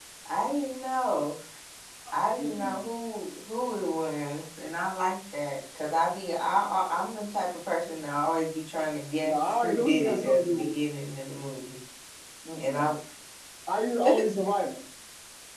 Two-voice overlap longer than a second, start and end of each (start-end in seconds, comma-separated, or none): 9.2-10.7